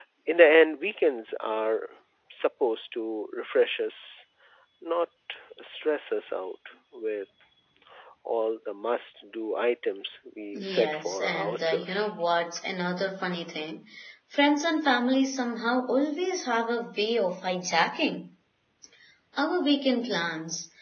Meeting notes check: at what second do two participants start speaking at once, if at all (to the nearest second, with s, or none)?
11 s